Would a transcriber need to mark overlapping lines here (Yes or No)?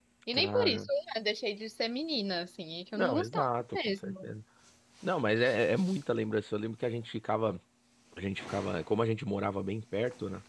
Yes